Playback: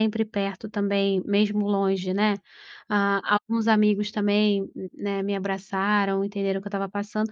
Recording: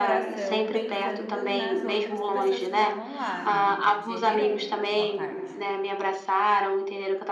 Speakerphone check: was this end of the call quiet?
No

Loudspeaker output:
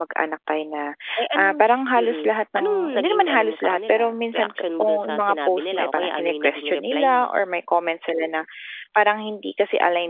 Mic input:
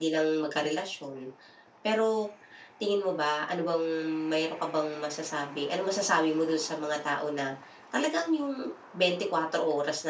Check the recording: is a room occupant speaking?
Yes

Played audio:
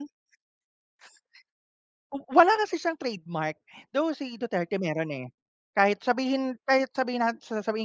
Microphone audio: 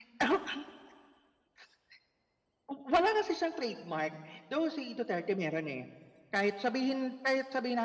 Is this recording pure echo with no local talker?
Yes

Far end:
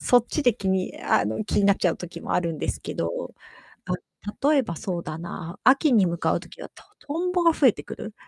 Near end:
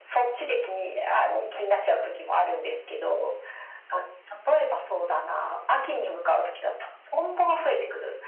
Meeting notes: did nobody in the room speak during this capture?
Yes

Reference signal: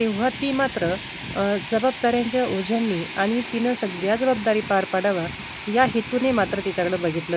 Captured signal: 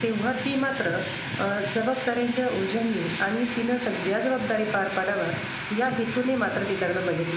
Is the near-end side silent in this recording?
Yes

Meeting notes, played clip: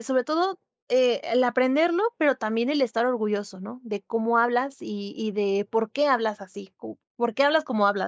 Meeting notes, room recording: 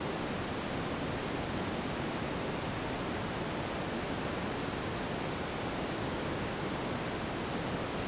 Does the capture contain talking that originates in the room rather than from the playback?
No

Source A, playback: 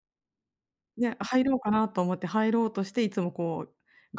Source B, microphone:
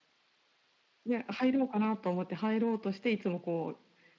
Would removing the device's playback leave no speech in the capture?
Yes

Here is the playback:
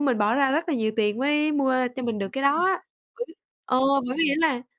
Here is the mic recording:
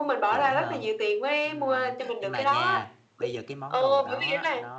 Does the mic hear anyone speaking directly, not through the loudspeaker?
Yes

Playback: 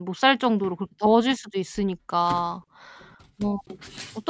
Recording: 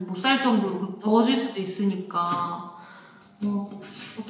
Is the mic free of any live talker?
Yes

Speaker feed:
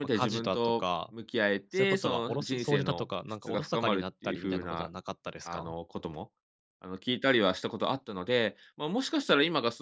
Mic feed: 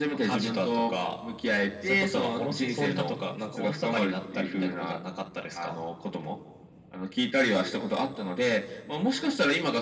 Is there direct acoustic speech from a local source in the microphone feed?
No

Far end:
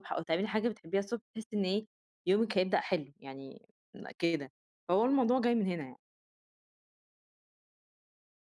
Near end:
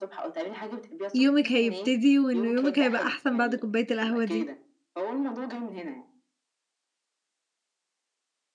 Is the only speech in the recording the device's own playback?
No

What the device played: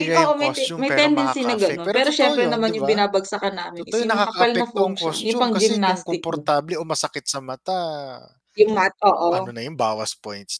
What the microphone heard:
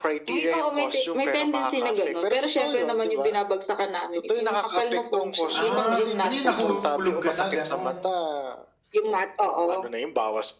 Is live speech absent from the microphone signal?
No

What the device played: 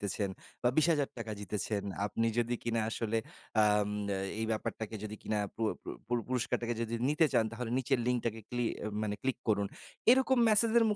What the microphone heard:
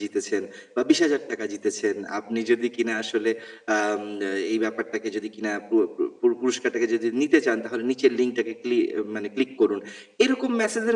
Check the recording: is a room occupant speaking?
No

